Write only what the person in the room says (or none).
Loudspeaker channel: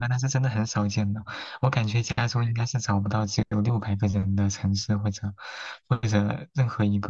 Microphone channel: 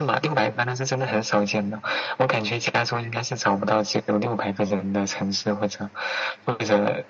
none